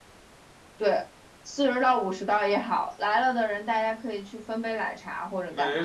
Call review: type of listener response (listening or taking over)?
taking over